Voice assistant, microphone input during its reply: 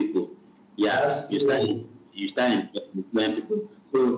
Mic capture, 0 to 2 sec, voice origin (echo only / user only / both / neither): both